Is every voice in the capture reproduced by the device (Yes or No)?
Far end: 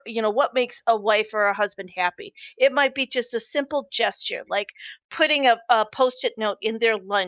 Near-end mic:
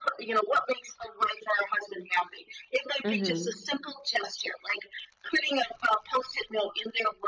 No